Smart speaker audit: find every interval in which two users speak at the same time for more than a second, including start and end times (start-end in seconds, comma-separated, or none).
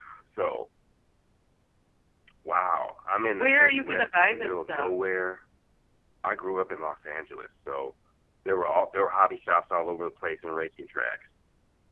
3.3-4.9